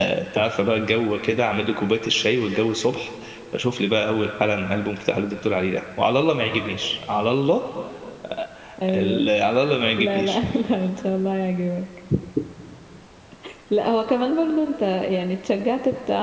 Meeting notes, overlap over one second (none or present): none